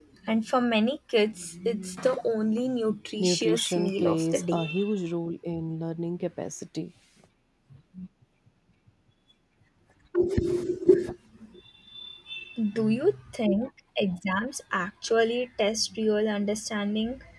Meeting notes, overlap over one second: present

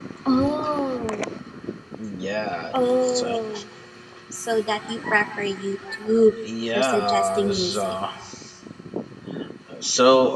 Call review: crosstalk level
present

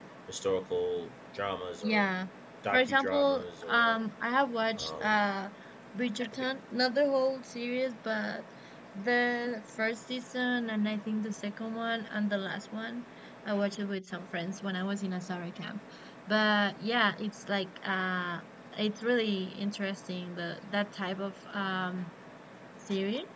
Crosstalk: present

